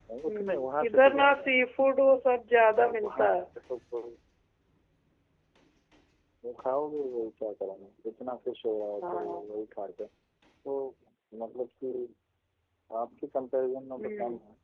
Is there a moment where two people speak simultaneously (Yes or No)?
Yes